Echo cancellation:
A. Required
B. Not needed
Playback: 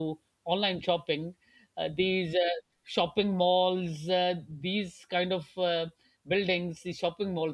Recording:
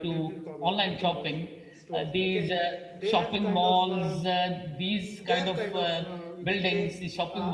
A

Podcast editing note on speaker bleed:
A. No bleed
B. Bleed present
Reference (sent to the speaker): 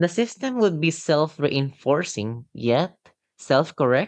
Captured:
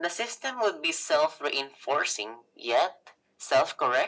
B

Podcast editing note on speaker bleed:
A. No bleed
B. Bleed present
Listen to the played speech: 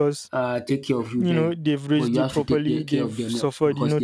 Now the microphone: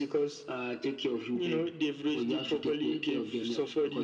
B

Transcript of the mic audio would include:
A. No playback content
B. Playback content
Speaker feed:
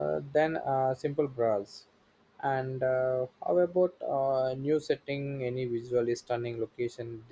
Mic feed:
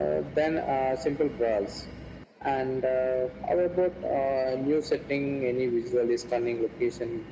B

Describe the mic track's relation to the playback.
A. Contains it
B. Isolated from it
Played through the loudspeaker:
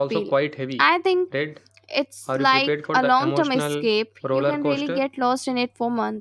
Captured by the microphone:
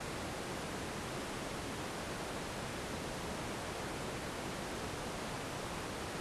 B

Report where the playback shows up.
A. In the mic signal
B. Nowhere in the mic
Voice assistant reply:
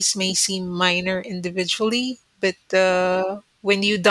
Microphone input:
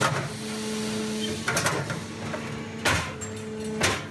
B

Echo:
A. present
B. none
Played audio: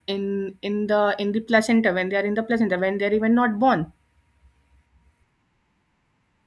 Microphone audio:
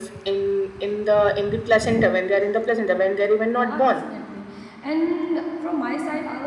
A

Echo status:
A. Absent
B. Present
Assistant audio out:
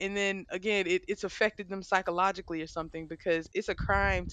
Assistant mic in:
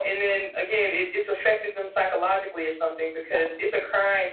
B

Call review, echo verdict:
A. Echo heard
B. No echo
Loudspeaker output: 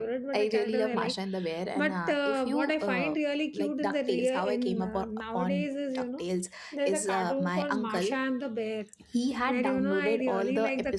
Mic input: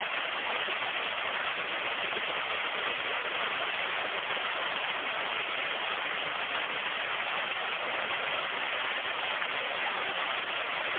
B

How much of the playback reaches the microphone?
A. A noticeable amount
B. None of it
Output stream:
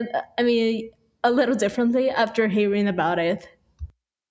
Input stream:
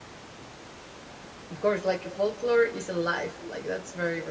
B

